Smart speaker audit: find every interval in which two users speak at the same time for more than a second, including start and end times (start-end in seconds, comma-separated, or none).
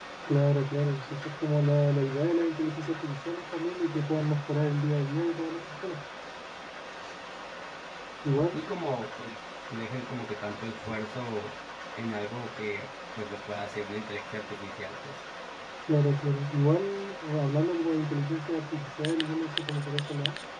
none